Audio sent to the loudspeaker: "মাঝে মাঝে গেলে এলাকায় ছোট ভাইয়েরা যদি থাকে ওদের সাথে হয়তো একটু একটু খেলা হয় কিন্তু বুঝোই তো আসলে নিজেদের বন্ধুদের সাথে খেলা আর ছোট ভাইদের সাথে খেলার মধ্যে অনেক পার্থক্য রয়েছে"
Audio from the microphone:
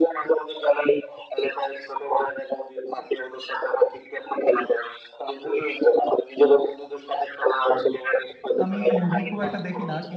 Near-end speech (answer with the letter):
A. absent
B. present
B